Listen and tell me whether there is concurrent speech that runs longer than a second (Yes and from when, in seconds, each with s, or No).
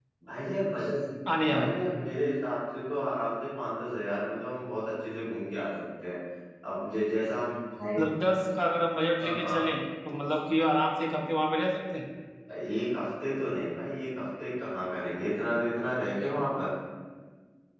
No